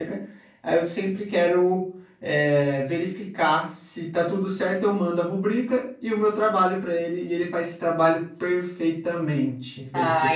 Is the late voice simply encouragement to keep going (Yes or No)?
No